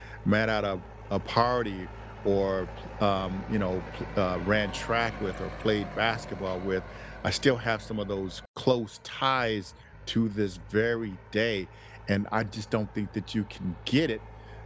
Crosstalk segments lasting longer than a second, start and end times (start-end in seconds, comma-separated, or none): none